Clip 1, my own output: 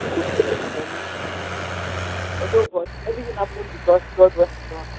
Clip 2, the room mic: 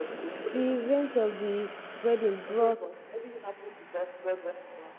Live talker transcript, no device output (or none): The event of the wedding brought